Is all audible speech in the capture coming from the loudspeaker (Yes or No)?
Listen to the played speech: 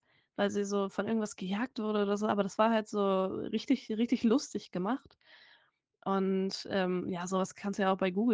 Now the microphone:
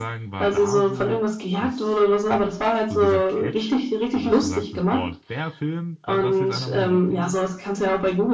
No